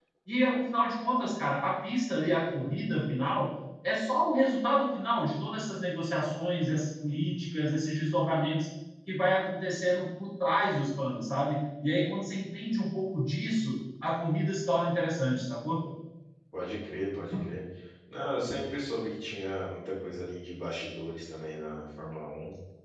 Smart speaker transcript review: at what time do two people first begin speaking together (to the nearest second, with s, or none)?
none